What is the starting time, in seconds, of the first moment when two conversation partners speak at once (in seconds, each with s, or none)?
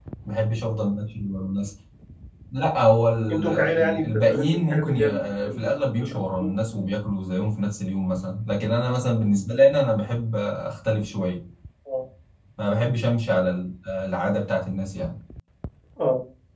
3.3 s